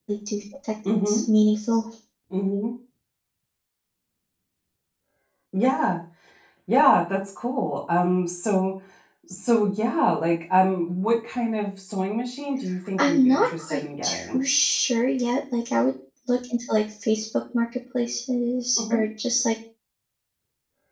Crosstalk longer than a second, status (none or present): present